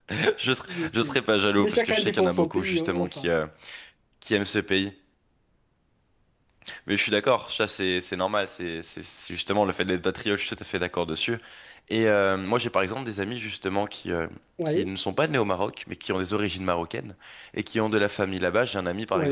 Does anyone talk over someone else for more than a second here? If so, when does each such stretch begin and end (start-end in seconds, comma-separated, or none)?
1.6-3.3